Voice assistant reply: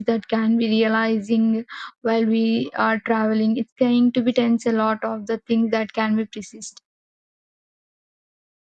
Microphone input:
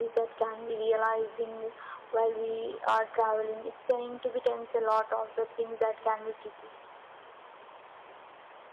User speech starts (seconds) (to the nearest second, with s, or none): none